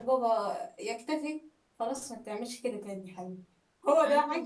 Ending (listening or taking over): taking over